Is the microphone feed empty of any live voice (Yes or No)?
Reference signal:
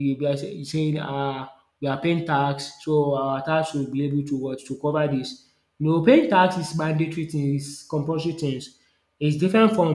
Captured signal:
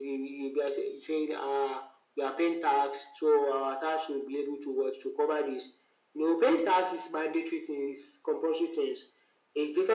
Yes